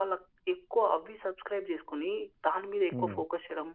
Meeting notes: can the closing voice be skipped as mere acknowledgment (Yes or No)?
Yes